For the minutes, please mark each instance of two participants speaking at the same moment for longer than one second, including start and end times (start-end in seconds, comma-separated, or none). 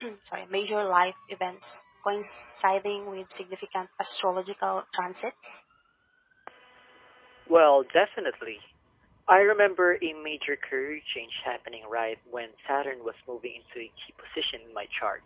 none